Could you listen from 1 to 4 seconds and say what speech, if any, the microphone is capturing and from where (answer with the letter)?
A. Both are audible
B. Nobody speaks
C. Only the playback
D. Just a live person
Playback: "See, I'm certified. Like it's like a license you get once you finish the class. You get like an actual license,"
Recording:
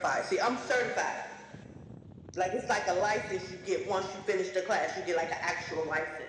C